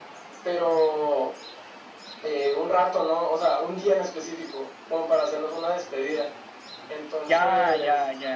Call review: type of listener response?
taking over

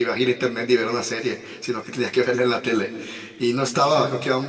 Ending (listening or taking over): listening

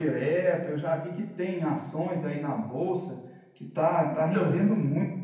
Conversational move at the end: listening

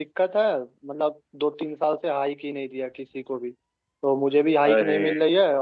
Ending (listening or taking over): listening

